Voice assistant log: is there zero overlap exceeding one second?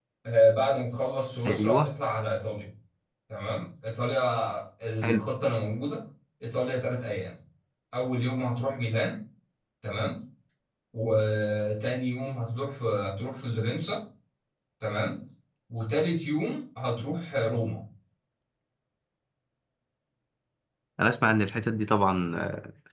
Yes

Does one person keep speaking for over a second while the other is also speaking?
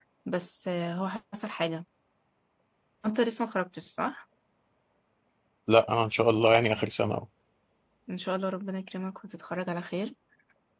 No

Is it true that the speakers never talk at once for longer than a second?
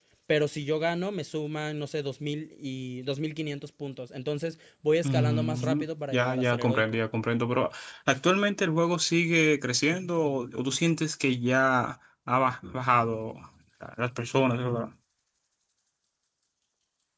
No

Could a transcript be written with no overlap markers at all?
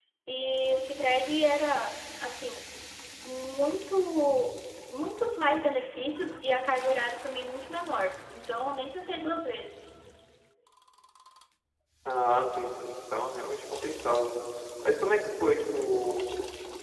Yes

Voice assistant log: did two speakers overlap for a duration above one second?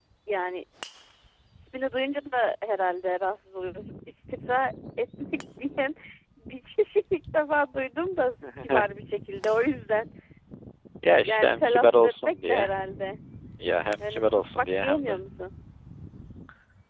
Yes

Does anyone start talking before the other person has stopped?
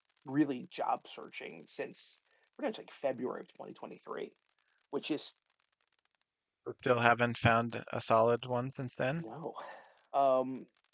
No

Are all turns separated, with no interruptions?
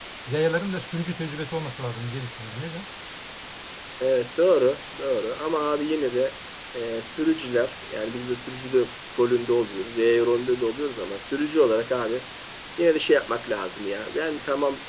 Yes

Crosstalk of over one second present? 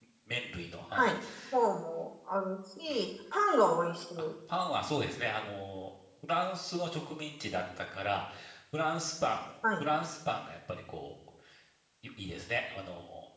No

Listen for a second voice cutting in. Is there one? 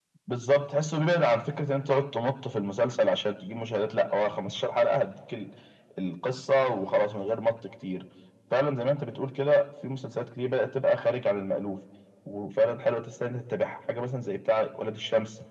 No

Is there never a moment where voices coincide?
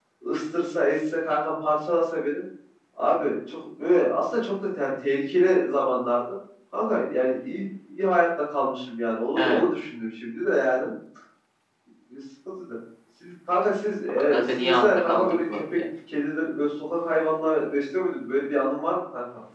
No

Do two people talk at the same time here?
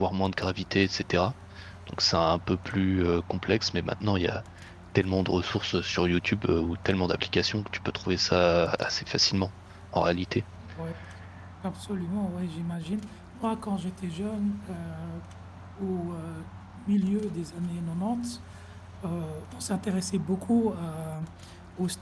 No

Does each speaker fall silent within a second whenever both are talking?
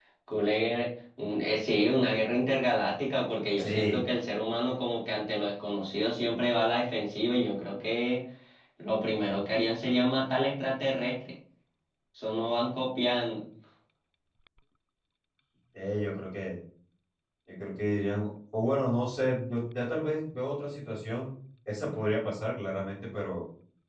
Yes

